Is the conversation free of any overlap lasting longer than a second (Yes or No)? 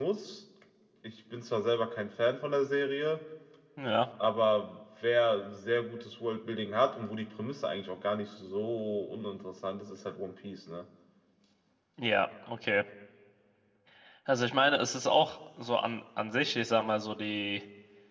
Yes